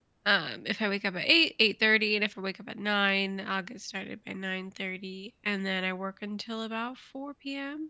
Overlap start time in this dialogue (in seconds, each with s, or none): none